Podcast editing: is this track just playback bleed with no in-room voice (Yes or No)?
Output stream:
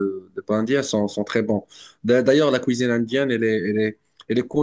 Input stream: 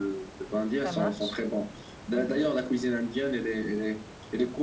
No